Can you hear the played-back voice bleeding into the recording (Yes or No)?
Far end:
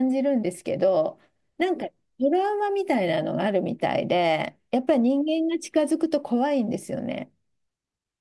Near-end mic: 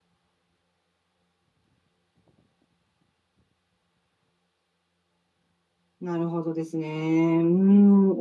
No